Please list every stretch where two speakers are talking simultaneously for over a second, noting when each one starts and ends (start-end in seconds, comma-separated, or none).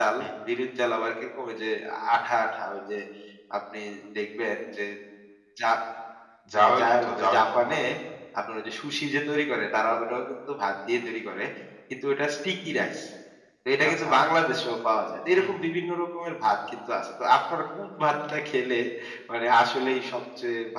6.5-7.8